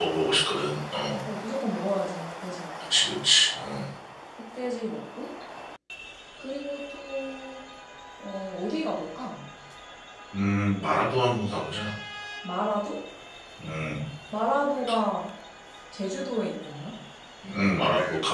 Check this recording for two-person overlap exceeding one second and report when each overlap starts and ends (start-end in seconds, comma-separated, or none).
none